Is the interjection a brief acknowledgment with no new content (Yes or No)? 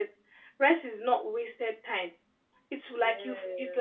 Yes